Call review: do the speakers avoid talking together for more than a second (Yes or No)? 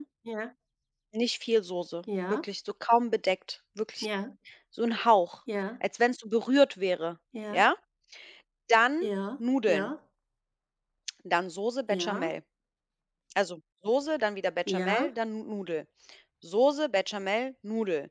Yes